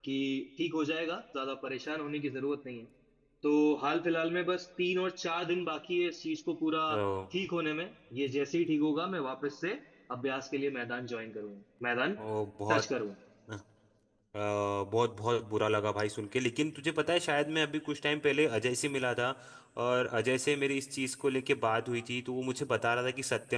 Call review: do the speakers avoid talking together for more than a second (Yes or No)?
Yes